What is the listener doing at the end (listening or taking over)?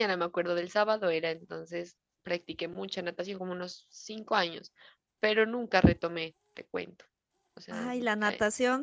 taking over